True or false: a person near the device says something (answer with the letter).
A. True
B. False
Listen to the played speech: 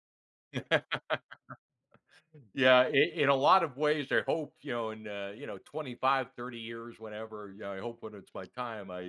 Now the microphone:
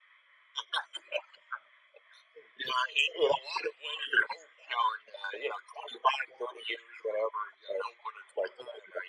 B